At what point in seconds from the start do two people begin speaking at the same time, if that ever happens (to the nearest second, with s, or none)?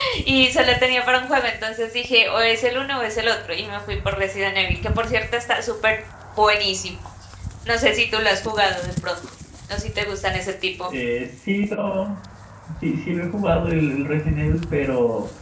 none